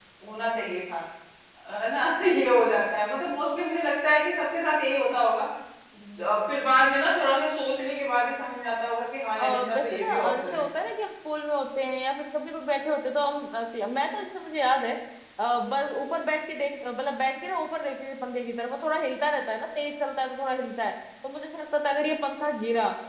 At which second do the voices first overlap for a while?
9.4 s

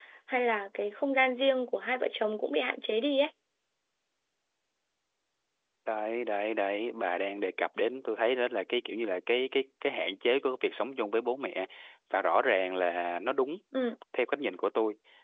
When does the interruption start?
none

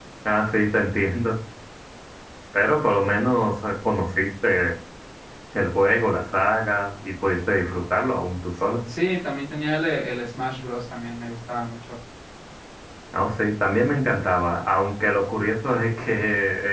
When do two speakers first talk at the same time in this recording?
none

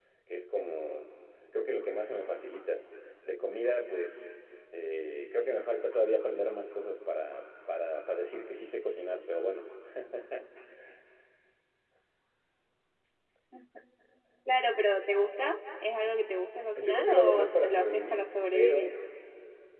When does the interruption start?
16.8 s

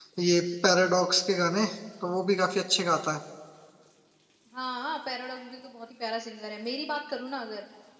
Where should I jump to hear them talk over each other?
none

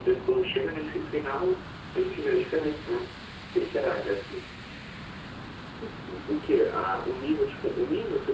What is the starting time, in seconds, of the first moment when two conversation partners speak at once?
none

